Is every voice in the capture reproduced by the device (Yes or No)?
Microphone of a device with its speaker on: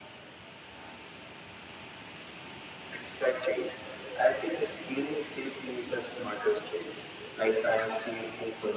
Yes